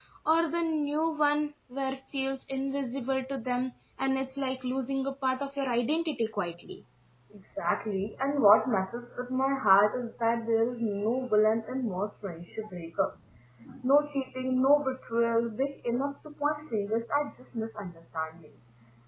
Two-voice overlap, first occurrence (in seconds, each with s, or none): none